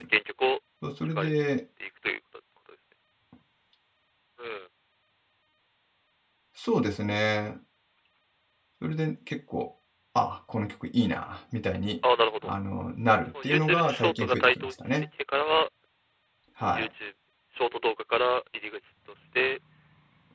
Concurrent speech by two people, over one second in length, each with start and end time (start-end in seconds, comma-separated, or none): 13.3-15.0